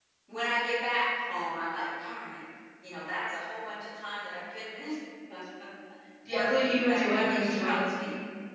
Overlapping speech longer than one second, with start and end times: 6.3-7.8

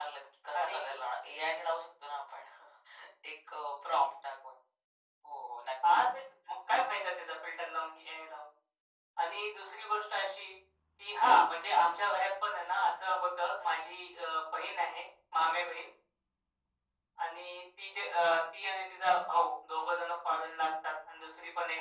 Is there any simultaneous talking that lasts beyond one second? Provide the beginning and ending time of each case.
none

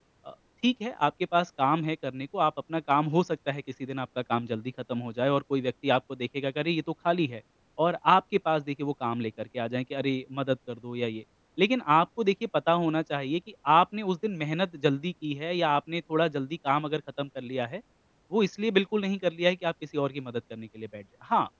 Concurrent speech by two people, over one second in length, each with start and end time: none

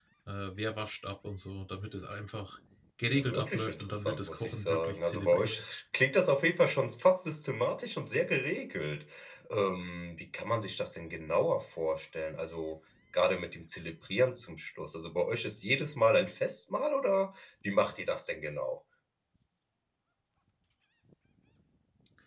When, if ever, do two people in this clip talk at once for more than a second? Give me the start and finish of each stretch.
3.1-5.5

